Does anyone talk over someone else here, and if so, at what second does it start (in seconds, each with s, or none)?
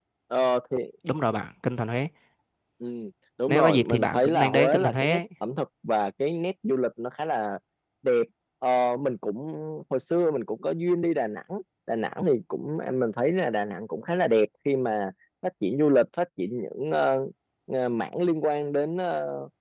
3.5 s